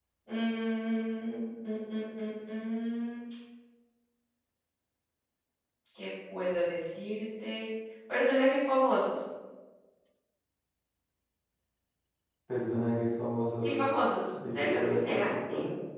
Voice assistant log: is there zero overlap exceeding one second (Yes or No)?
No